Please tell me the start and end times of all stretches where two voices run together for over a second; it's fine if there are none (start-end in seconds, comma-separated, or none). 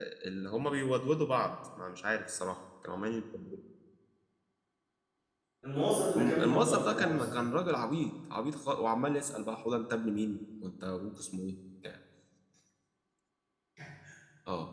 6.2-7.4